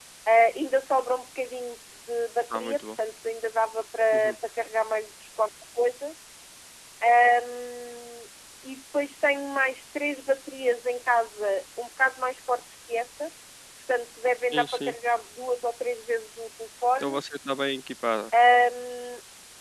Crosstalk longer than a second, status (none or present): none